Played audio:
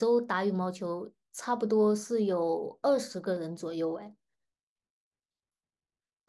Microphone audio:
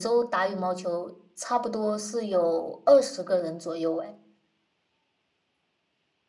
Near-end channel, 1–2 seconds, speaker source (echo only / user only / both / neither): echo only